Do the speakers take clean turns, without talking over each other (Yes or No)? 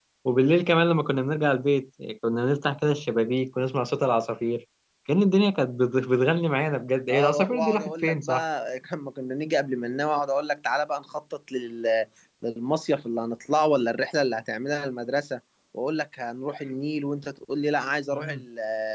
No